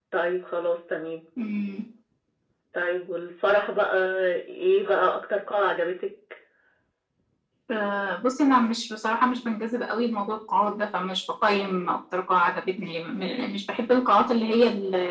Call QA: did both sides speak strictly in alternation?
Yes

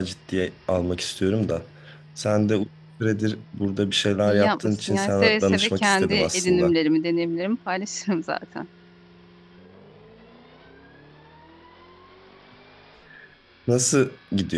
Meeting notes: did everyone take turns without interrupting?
No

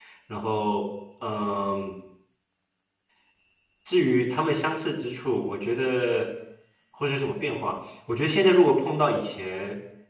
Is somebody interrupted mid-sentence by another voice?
No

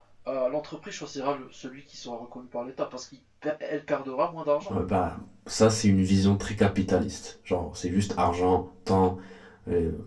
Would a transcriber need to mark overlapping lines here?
No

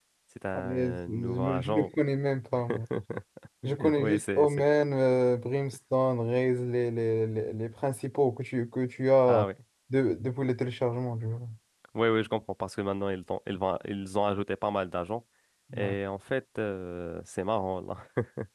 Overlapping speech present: Yes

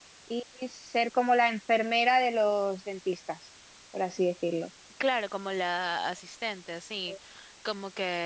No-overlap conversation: Yes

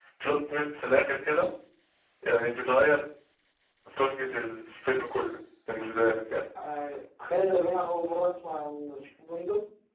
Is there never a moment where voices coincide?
Yes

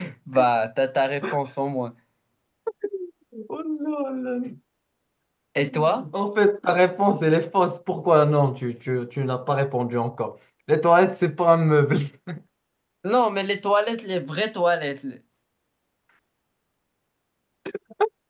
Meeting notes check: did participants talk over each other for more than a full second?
No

